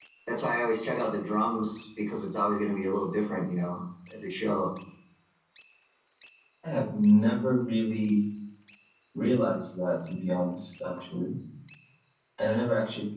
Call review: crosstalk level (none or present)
none